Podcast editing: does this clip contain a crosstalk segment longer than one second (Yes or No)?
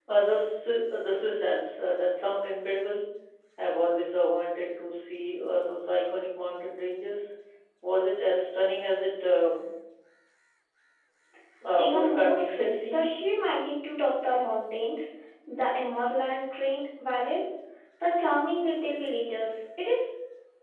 Yes